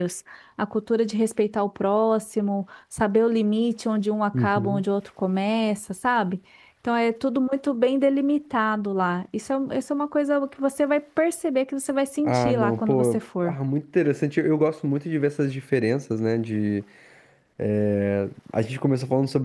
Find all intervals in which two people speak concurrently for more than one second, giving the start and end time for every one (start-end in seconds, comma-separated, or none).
12.2-13.6